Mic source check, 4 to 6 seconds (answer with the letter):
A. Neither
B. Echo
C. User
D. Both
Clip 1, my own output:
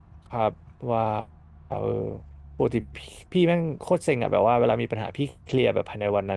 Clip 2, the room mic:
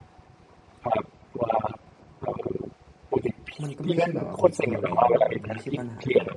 D